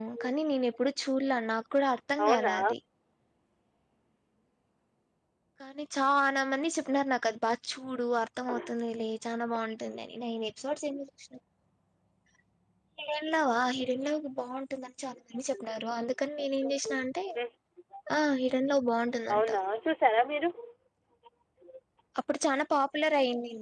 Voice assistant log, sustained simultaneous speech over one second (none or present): none